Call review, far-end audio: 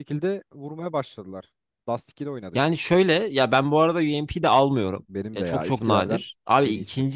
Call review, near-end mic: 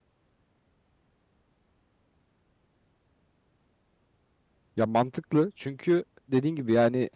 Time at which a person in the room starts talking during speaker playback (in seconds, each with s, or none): 4.8 s